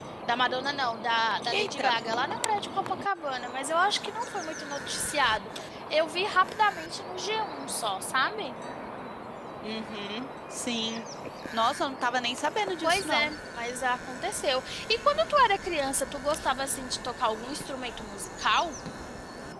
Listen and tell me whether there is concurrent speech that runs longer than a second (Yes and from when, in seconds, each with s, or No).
No